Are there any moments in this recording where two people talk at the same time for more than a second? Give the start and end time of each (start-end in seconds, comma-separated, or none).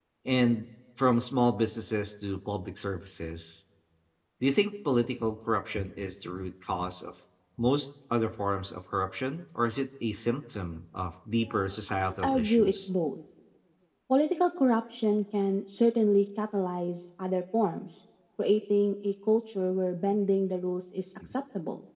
11.4-12.9